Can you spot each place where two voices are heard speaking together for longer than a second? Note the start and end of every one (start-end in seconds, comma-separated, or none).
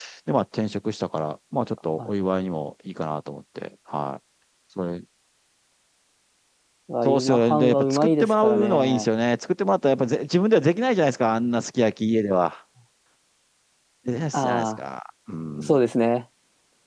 7.0-9.1